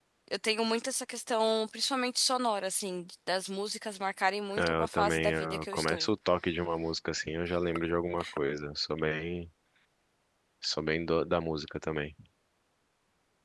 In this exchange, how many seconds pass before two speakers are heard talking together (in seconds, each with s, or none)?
4.6 s